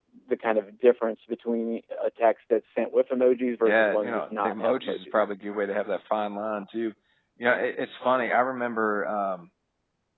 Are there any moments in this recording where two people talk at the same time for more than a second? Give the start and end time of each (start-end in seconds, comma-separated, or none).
3.6-5.2